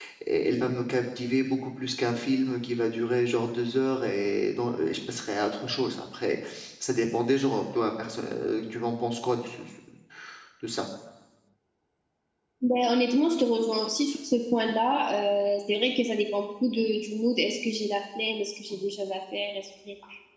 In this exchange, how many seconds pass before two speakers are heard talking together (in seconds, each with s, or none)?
none